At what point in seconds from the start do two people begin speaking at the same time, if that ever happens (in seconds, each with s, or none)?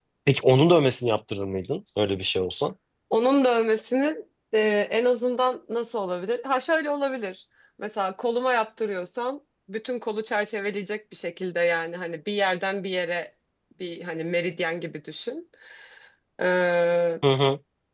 none